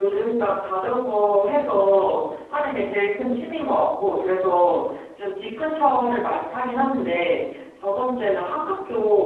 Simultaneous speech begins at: none

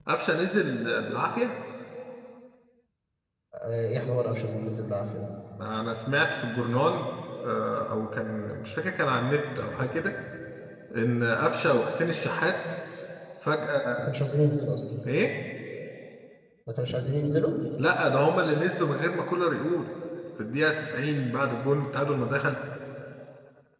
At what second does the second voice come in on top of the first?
none

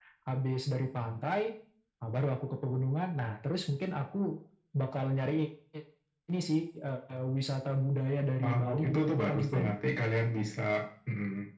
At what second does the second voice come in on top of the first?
8.4 s

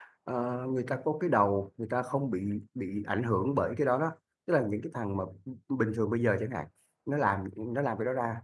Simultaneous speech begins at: none

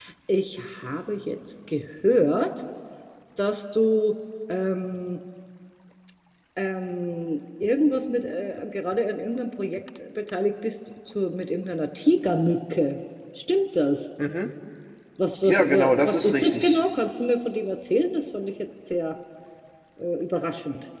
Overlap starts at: 15.4 s

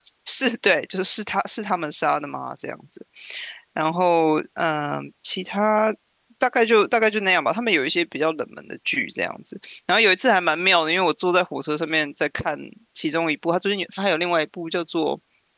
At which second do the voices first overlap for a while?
none

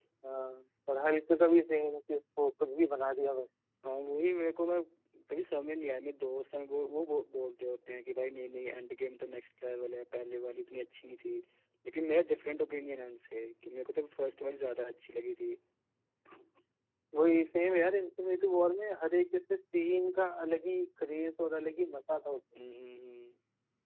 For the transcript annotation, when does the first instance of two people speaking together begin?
none

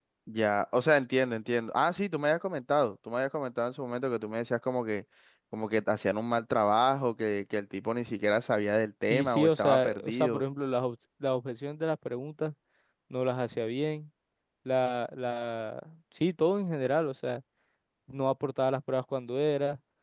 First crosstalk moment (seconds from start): 9.1 s

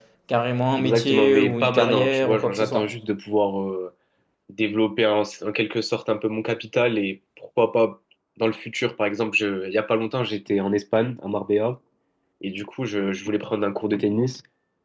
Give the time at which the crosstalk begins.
0.8 s

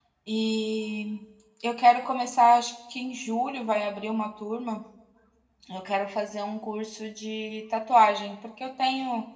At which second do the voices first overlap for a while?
none

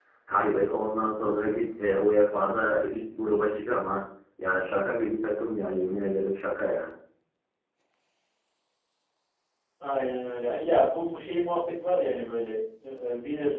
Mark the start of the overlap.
none

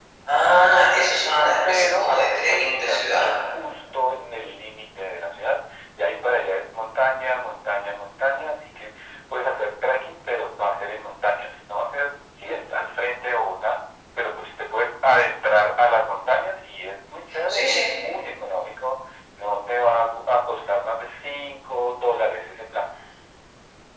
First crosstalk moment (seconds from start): 1.3 s

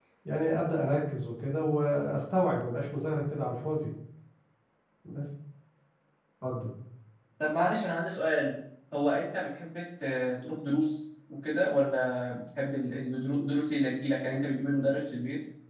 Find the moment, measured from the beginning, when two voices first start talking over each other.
none

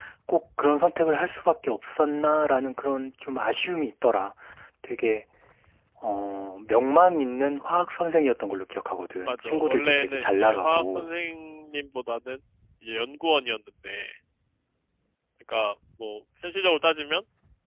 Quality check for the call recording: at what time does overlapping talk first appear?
9.3 s

